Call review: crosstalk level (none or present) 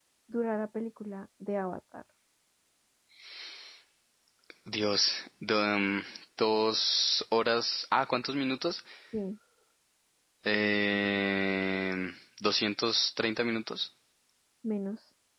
none